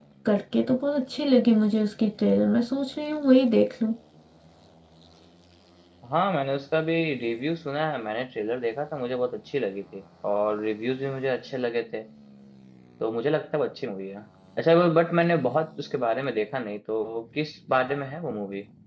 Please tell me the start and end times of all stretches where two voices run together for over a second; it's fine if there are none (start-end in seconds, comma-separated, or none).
none